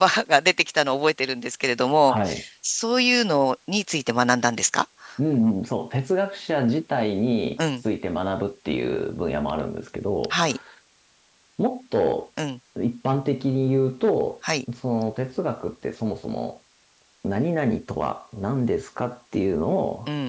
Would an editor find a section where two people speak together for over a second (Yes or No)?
No